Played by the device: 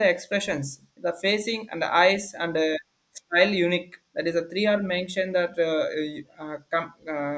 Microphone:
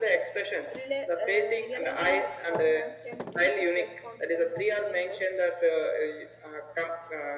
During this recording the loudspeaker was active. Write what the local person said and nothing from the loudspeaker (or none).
rela- uh, realizing like how dance can boost the self-confidence and teamwork